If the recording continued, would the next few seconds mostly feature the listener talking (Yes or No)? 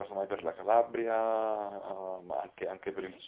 Yes